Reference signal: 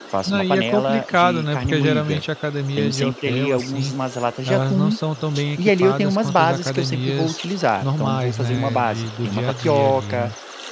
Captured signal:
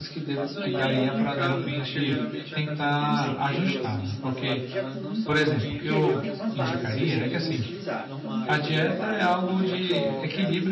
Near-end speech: present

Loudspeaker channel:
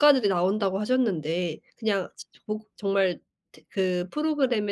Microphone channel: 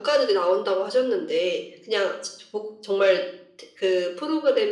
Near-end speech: none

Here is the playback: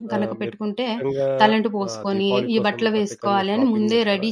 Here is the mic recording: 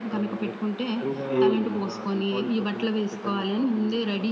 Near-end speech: present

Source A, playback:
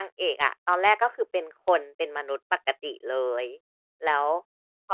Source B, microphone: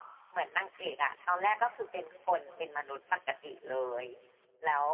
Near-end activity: none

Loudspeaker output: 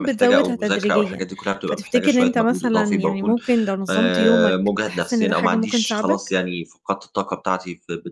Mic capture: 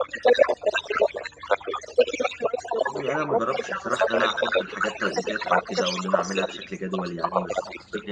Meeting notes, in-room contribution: present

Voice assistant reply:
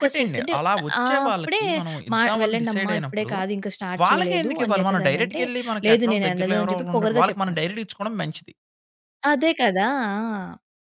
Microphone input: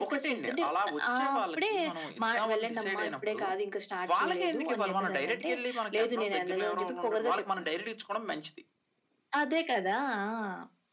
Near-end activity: none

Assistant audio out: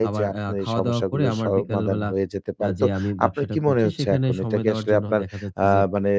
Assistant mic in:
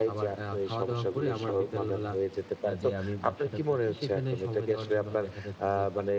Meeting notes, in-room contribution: none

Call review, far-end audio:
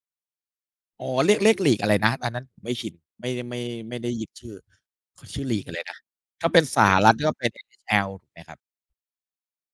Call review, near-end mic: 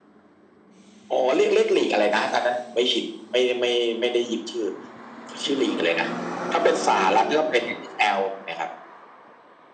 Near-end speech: none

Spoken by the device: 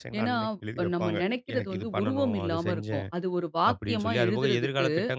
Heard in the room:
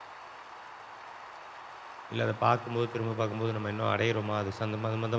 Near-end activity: present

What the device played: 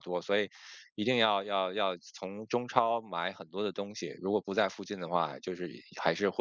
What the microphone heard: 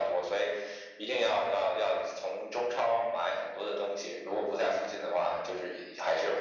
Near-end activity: none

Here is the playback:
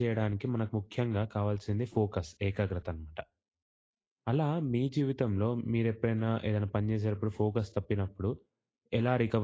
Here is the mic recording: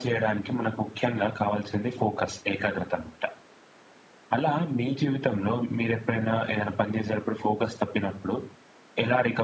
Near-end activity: none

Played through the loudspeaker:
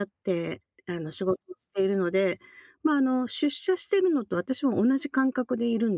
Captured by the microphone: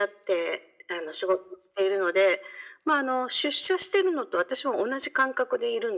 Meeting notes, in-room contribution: none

